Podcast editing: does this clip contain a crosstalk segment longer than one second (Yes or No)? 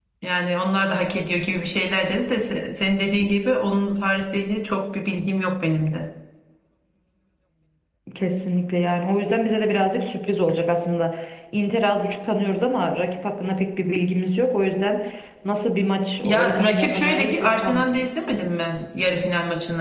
Yes